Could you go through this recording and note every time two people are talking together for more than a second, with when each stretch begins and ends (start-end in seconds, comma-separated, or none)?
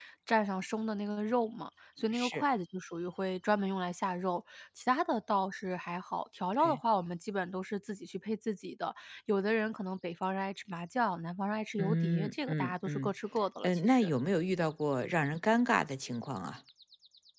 11.8-13.1